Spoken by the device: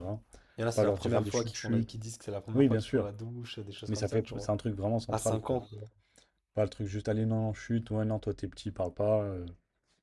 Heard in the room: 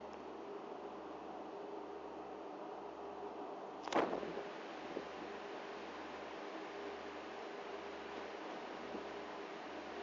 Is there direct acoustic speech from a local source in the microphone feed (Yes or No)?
No